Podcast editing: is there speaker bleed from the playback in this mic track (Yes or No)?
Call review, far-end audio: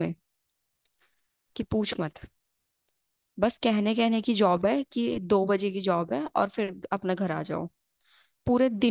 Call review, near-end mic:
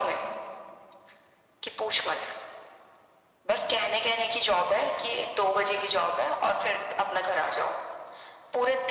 Yes